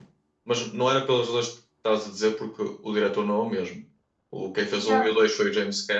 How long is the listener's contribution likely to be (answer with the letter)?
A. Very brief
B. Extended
A